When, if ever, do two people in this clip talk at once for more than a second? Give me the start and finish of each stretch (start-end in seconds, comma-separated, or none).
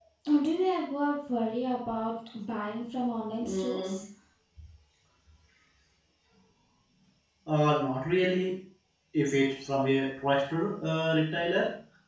none